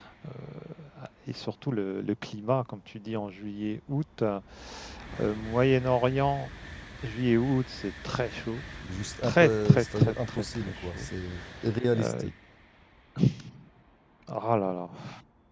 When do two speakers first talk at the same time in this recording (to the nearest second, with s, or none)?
9 s